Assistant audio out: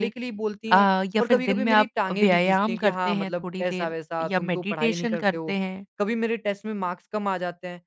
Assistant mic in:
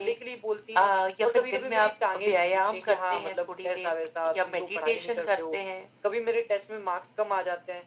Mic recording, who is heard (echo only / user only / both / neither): echo only